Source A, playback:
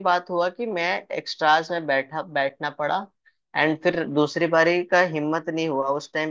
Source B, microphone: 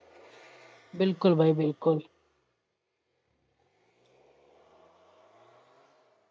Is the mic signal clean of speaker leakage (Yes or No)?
Yes